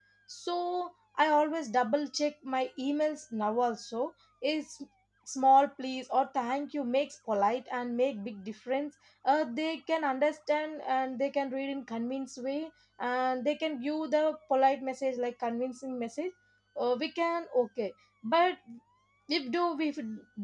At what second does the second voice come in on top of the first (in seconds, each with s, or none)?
none